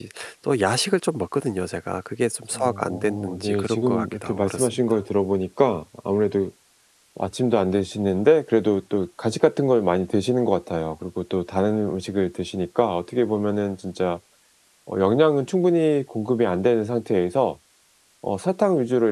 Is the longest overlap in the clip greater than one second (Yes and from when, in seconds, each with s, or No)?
Yes, from 2.5 s